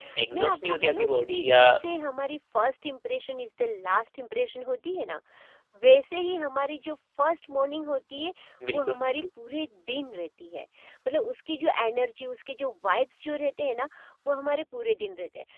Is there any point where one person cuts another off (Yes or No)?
Yes